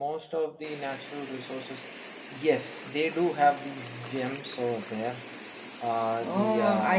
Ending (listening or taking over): taking over